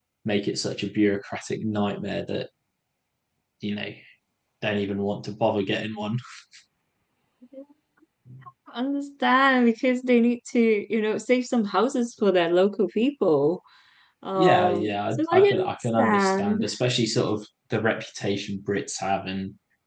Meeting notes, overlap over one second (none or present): present